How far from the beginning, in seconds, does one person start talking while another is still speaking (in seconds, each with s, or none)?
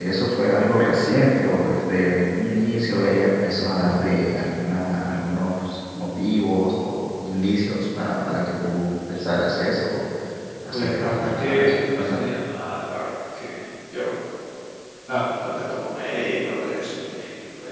10.7 s